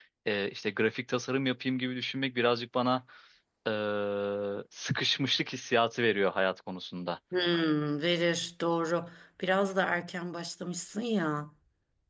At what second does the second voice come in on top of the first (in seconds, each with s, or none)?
none